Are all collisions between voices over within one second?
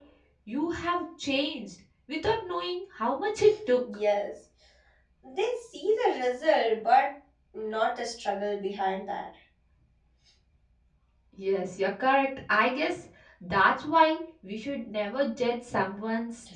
Yes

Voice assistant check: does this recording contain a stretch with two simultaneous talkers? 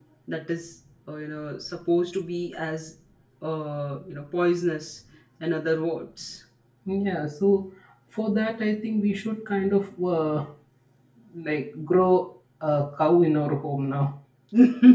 No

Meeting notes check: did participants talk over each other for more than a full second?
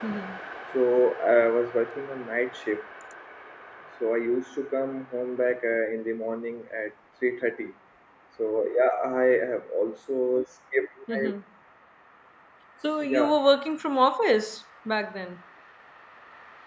No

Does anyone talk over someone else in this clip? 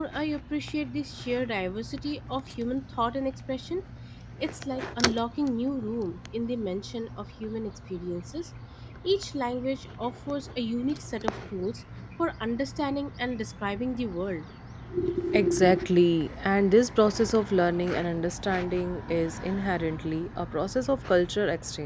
No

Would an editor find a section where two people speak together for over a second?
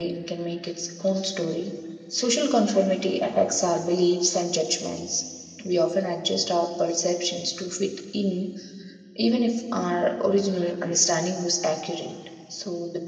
No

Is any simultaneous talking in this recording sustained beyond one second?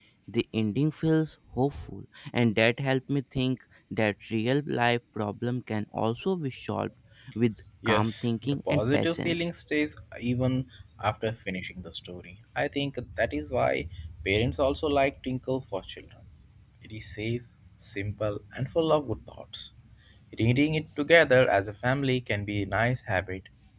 Yes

